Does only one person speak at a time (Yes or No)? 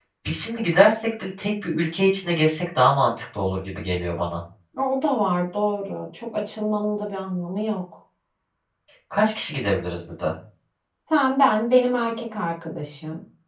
Yes